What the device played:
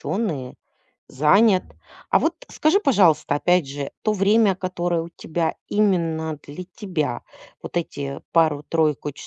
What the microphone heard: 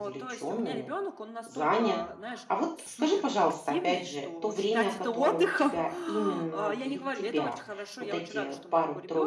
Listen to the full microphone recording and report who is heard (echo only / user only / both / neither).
both